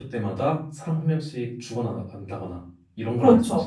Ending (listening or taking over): taking over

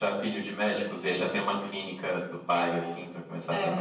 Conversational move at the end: taking over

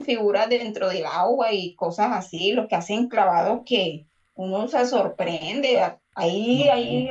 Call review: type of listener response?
listening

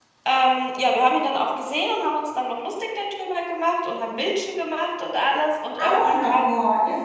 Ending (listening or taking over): taking over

